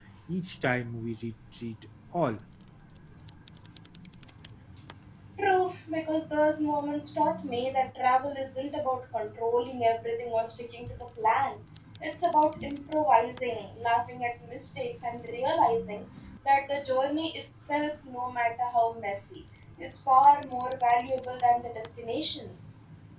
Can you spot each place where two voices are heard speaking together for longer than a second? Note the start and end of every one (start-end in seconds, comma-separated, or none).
none